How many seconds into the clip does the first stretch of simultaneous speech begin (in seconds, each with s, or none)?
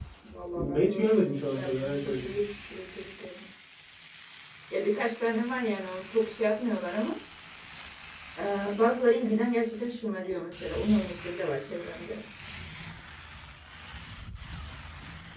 0.6 s